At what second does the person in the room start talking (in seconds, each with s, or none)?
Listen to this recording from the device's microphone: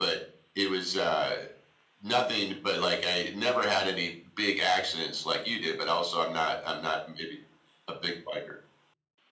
none